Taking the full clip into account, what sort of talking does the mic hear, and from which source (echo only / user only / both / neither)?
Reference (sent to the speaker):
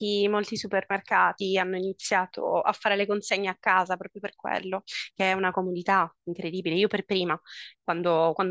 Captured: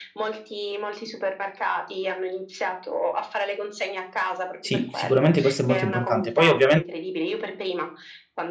both